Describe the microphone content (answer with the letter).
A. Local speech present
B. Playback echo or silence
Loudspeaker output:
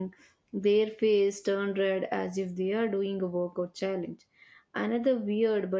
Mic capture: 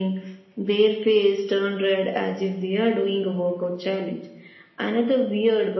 B